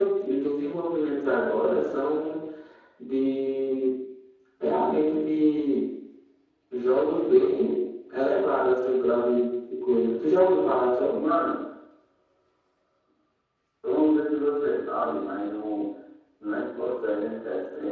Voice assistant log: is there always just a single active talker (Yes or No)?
Yes